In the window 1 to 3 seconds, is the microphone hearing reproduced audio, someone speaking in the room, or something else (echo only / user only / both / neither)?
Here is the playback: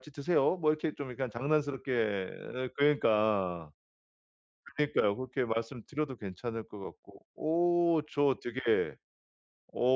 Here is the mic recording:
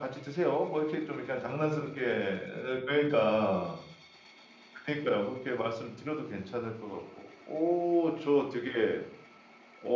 echo only